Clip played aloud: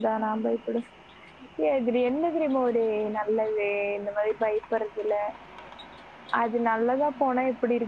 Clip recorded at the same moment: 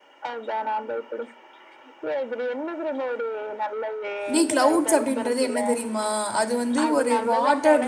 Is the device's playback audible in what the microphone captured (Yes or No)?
Yes